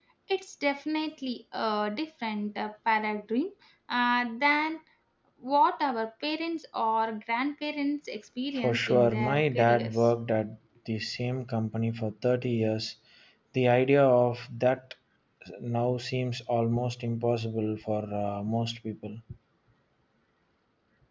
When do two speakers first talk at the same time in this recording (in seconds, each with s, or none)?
8.6 s